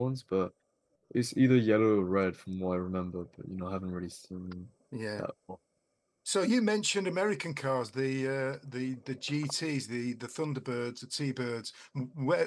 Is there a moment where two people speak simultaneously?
No

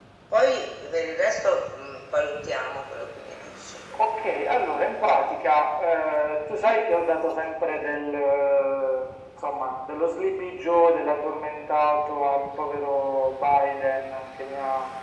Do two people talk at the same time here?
No

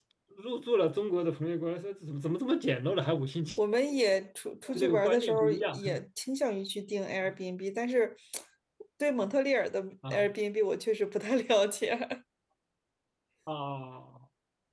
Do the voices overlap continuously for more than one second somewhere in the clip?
Yes, from 4.8 s

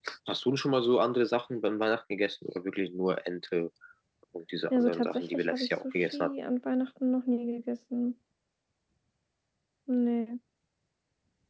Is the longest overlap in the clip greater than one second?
Yes, from 4.7 s

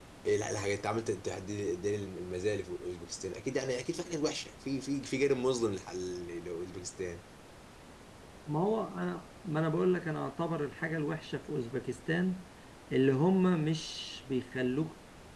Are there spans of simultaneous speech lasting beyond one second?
No

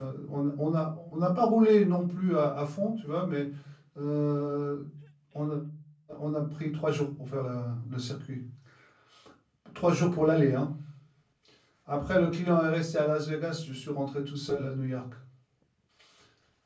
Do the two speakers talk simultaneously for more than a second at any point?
No

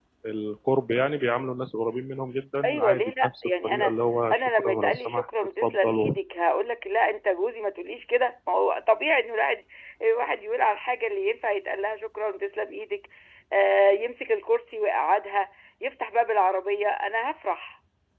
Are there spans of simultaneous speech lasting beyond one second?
Yes, from 2.6 s

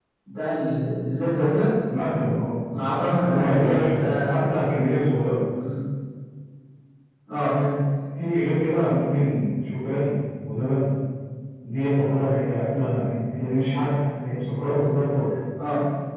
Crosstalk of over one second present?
Yes, from 3.2 s

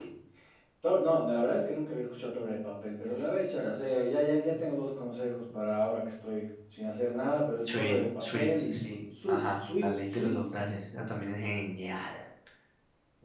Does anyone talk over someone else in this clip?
Yes, from 7.7 s

